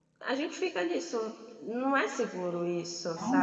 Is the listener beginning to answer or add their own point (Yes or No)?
Yes